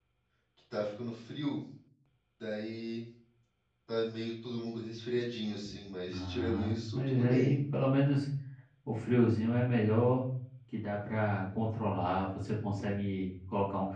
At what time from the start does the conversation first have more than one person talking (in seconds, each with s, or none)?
6.1 s